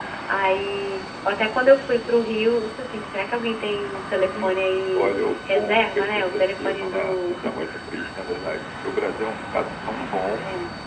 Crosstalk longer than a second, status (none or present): present